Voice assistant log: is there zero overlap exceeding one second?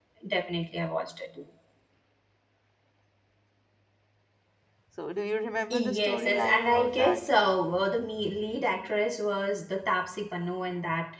No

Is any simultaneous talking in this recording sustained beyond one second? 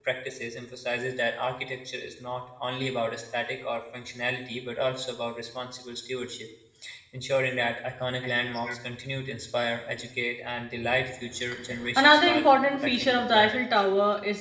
Yes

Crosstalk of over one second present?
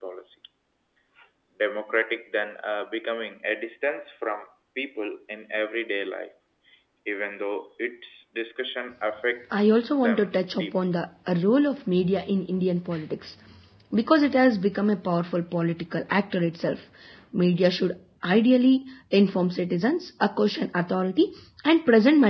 Yes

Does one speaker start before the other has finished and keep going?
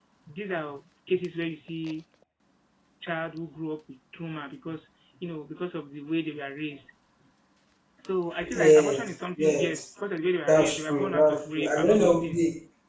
Yes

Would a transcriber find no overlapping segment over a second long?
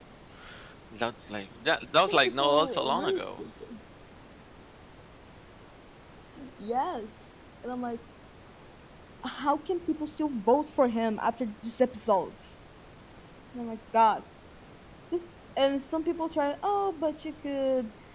No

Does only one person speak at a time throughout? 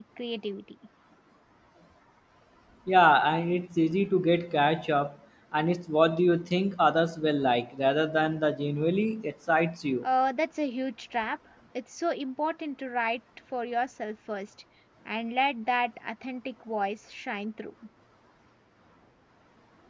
Yes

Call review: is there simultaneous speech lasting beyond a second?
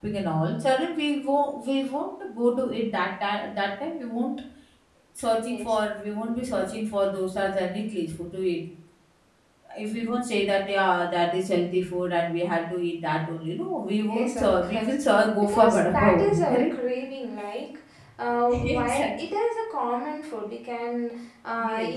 Yes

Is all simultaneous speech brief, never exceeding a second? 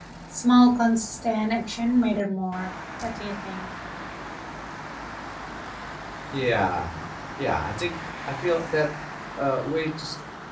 Yes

